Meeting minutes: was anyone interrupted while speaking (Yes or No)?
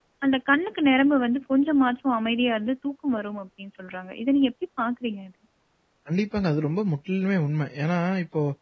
No